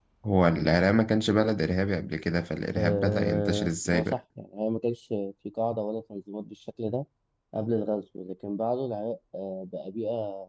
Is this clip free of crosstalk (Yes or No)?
No